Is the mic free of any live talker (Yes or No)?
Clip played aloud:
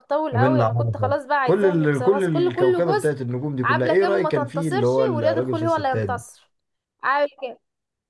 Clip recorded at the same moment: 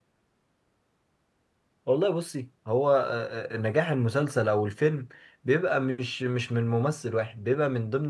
No